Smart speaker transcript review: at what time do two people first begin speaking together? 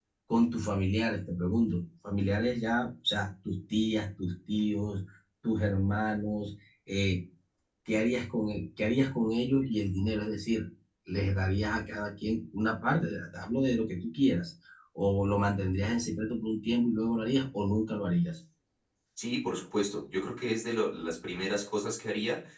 none

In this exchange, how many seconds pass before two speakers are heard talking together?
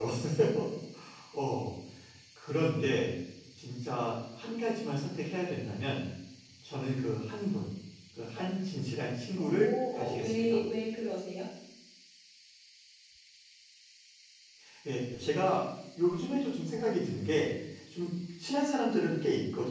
9 s

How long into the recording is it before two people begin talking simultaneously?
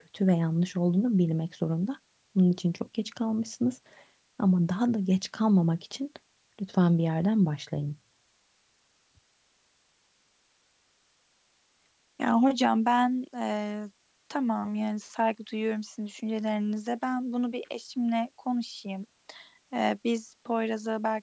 none

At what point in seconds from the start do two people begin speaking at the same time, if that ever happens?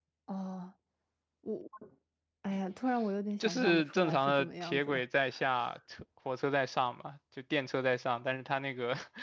3 s

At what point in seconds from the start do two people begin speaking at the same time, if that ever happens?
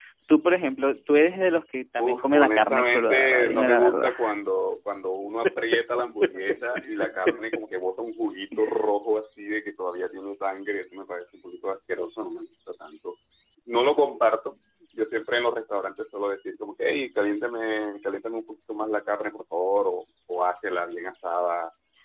2 s

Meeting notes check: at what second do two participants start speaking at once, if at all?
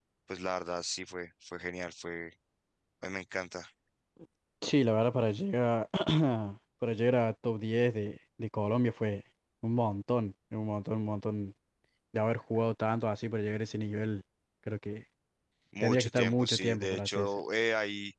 16 s

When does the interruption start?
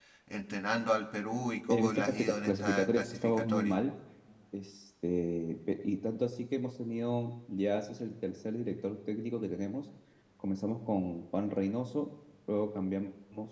2 s

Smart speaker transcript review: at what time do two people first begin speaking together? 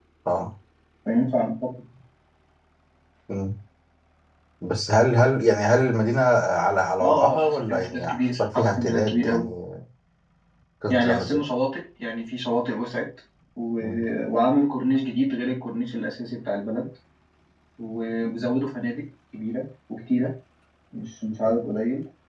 7 s

